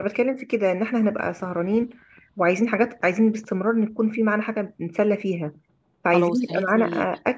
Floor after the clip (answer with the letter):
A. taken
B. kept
B